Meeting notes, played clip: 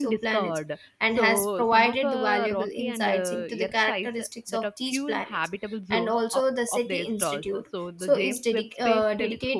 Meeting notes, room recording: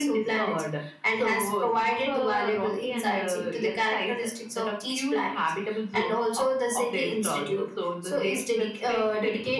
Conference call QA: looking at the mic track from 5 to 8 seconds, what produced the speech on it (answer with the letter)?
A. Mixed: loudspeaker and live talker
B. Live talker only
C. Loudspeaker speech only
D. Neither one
C